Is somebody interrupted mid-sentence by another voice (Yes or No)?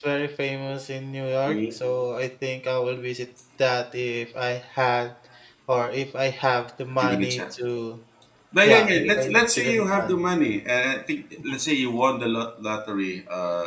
Yes